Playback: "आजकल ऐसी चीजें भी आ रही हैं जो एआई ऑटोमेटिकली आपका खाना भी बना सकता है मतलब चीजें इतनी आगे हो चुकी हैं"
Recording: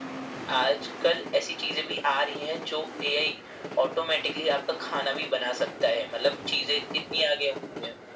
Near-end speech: none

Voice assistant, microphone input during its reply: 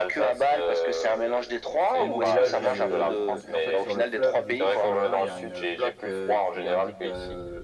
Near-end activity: present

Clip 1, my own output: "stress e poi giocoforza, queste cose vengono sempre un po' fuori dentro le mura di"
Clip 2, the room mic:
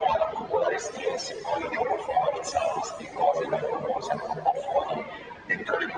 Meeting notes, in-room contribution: none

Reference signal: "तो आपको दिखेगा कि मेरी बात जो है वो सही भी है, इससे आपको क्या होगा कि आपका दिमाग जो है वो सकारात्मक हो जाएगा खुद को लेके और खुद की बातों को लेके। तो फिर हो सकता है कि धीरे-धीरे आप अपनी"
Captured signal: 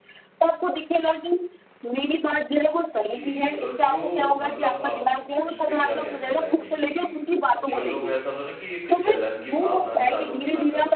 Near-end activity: present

